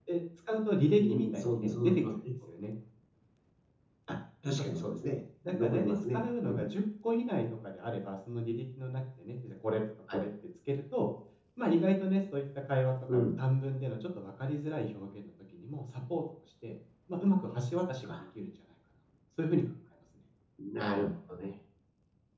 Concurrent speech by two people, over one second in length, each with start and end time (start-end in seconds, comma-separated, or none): 0.9-2.1, 5.4-6.7